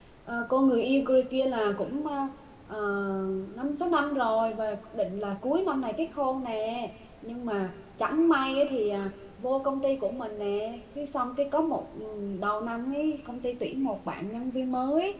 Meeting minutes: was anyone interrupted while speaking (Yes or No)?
No